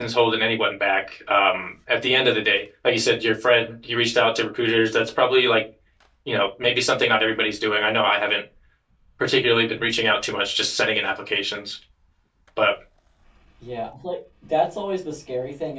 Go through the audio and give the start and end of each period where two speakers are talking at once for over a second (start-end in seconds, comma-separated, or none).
none